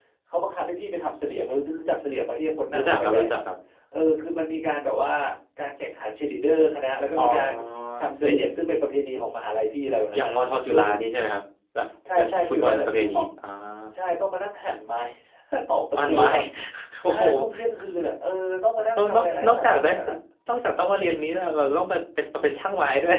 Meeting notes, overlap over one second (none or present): present